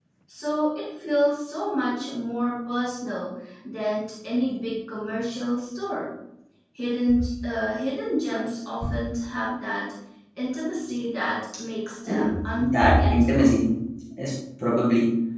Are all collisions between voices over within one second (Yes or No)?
No